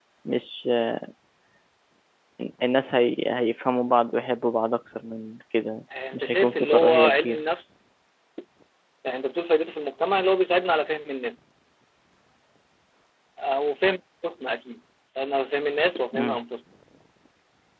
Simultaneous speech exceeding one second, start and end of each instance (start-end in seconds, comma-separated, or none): 6.1-7.4